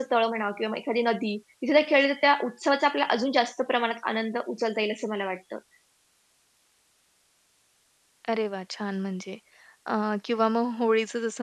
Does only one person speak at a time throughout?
Yes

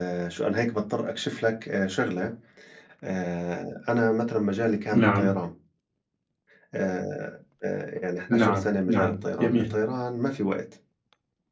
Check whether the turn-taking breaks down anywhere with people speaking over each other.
Yes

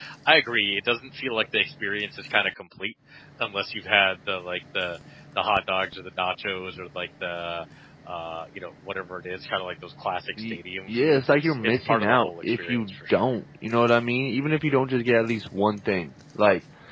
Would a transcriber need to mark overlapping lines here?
Yes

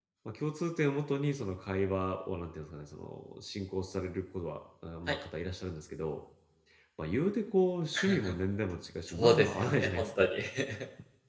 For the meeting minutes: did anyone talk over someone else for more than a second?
Yes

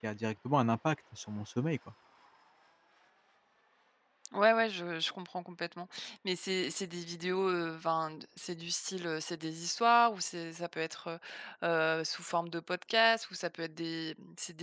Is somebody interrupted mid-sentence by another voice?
No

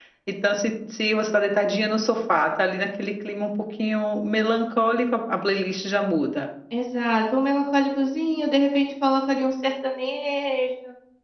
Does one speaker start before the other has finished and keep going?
No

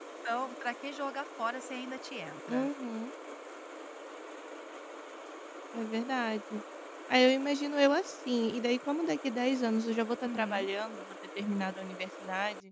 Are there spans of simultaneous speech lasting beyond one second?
No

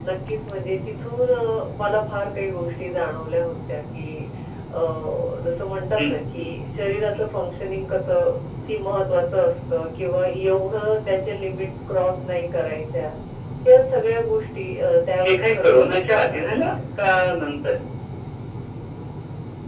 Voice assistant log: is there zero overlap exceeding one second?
No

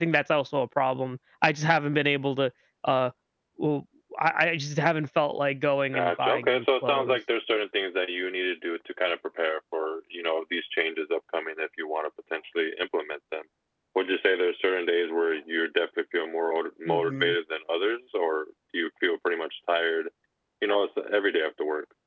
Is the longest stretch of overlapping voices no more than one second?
No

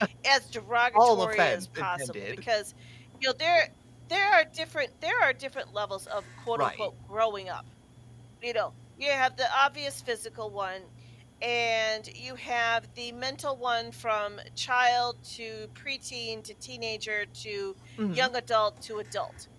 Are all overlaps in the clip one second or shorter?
No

